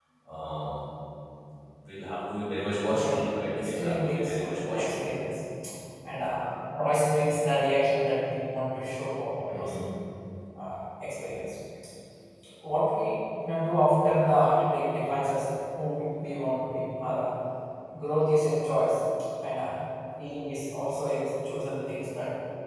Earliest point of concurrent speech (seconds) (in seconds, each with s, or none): 2.9 s